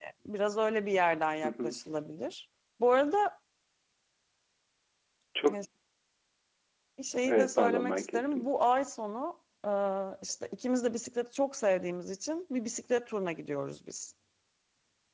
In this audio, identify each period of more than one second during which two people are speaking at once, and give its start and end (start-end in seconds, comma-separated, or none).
7.3-8.5